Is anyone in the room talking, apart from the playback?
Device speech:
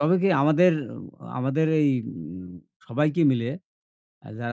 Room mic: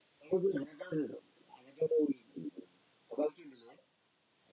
No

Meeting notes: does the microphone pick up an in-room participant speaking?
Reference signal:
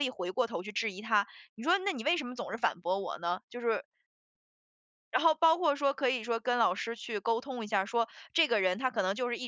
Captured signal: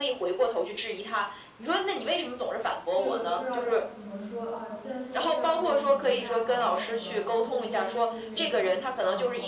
Yes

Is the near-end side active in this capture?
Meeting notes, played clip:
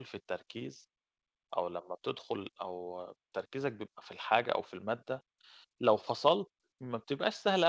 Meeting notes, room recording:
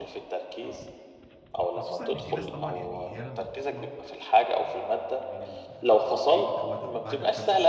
Yes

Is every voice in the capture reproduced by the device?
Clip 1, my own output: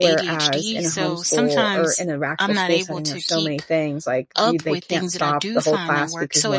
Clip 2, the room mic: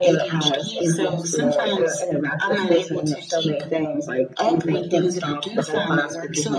Yes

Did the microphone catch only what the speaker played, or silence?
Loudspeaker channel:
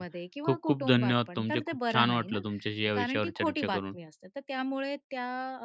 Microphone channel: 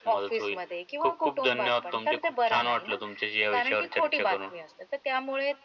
Yes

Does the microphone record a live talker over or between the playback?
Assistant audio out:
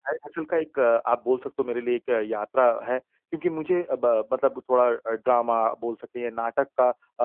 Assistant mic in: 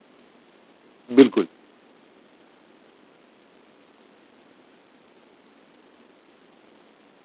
Yes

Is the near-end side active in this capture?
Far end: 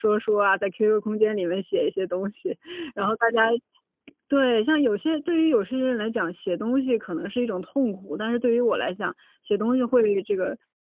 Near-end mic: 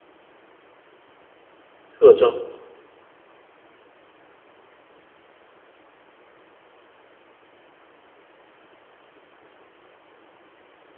Yes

